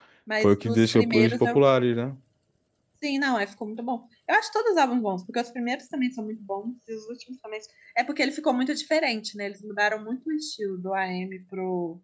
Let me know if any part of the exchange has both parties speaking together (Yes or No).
Yes